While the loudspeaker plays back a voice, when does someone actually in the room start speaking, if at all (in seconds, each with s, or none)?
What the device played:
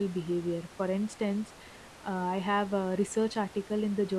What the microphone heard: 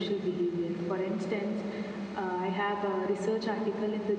none